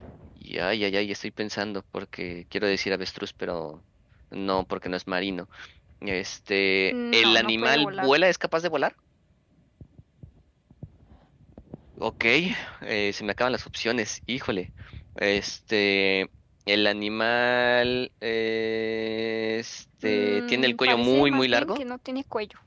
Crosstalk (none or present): present